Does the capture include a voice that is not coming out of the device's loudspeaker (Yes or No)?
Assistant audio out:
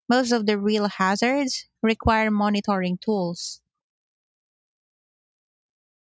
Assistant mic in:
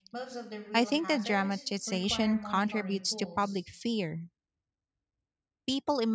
Yes